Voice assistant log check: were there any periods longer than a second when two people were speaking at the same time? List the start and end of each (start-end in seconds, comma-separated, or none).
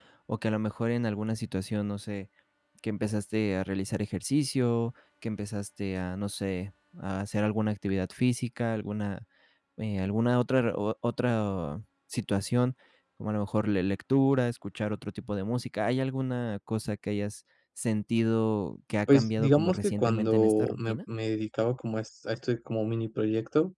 19.1-21.0